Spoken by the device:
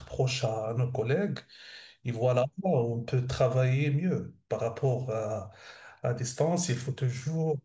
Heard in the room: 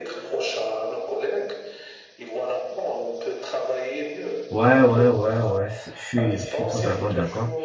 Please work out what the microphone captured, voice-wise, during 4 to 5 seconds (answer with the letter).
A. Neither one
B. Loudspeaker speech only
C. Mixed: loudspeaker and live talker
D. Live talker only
C